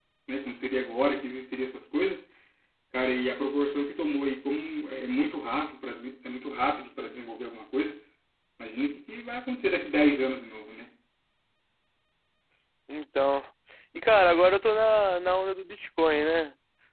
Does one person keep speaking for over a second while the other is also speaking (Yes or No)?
No